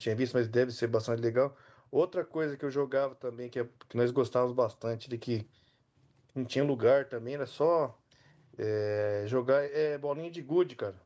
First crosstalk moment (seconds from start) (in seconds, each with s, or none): none